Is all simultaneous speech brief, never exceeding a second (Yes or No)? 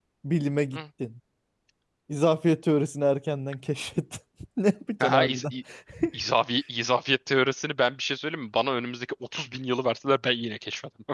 Yes